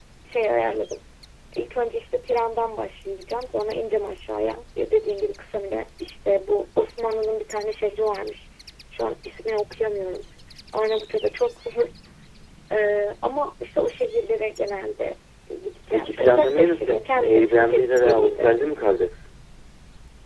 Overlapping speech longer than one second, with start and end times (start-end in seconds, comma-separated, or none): 15.9-18.6